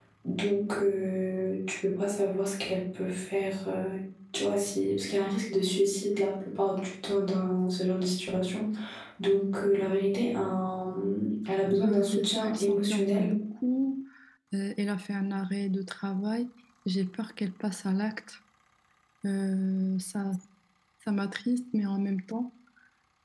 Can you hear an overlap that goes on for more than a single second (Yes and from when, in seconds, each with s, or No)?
Yes, from 11.7 s